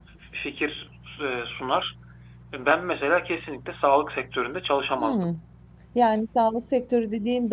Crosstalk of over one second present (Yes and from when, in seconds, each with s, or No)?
No